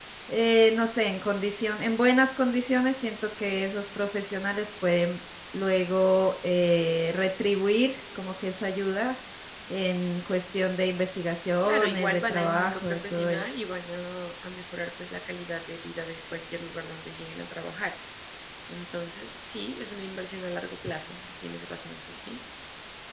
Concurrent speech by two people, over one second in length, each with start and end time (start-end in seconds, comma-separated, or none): 11.6-13.5